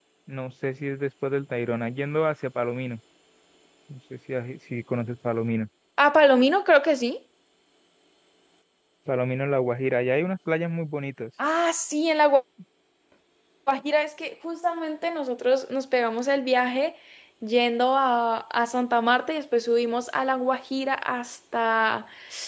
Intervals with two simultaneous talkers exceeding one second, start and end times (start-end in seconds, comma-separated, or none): none